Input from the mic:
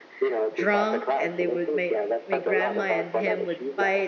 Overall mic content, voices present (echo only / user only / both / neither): both